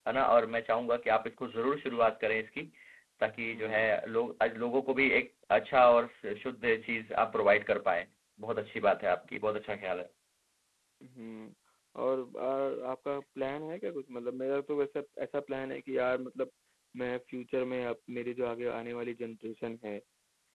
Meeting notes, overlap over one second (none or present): none